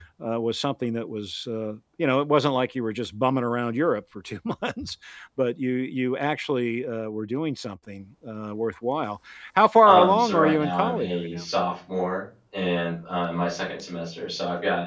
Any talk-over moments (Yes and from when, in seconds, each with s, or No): Yes, from 9.8 s